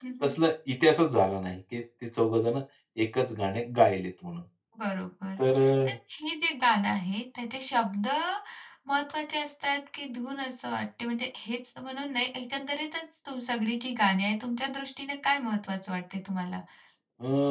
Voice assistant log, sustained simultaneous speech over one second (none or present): none